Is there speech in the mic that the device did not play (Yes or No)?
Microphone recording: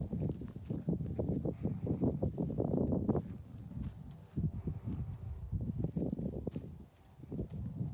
No